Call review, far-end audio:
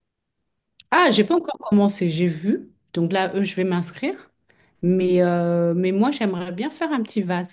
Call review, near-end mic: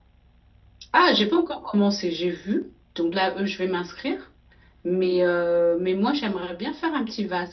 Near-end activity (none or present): none